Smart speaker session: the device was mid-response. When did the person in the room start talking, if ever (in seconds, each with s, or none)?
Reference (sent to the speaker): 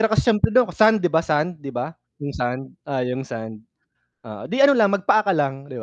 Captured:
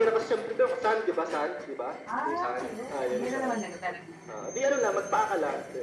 2.1 s